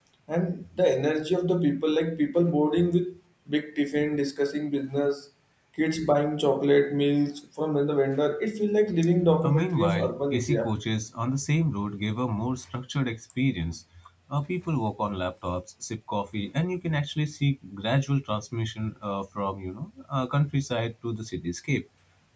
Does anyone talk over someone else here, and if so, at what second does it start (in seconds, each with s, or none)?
9.4 s